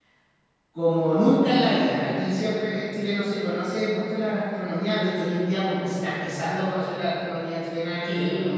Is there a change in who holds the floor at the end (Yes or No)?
Yes